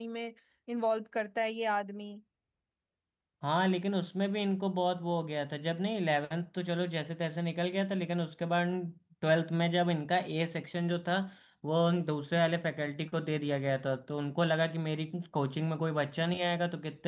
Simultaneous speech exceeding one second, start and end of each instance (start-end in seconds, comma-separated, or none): none